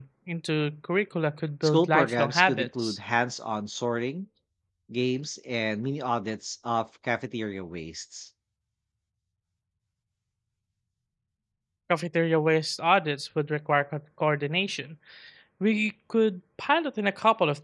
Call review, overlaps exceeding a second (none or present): present